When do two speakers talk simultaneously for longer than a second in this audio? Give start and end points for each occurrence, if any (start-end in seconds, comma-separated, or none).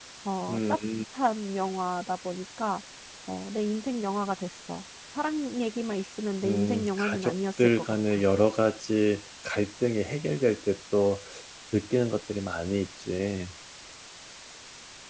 6.4-8.2